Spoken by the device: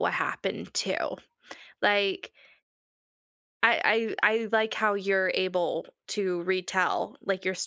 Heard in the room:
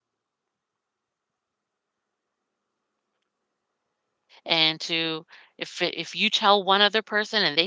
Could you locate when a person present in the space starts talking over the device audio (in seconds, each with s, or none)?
4.4 s